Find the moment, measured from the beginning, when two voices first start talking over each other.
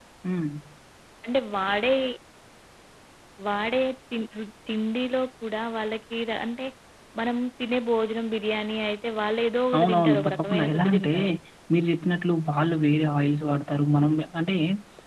9.7 s

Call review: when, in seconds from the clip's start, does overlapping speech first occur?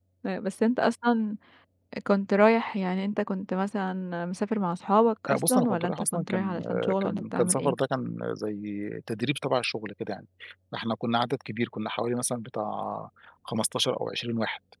5.3 s

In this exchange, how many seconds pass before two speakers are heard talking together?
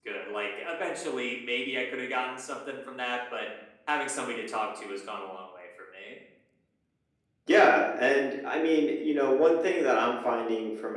none

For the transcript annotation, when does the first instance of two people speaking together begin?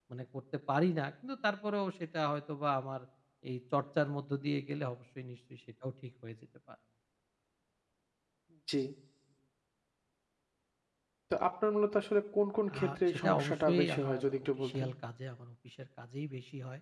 12.7 s

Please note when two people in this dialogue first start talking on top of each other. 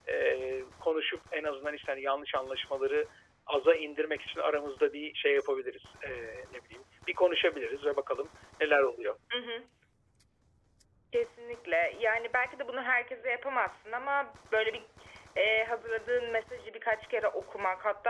none

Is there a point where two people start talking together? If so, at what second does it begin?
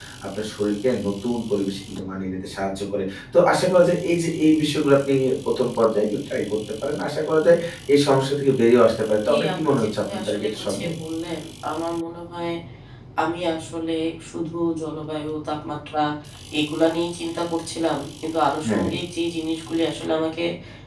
9.3 s

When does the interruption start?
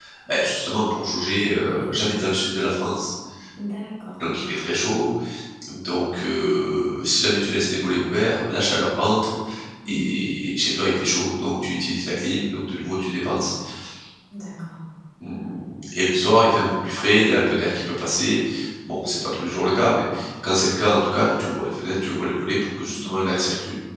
1.2 s

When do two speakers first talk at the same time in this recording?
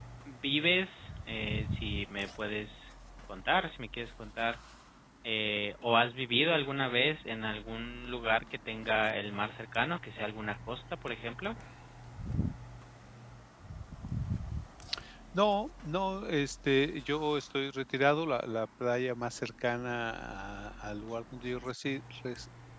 none

